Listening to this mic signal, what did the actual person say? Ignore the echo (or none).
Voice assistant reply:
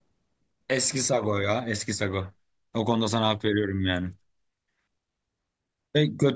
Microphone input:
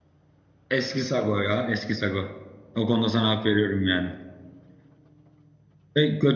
none